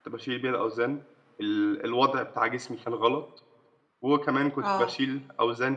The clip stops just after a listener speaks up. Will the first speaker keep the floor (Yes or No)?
Yes